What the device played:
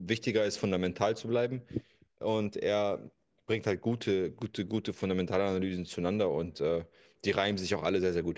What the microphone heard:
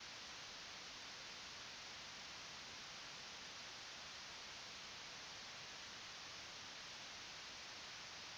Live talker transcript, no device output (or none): none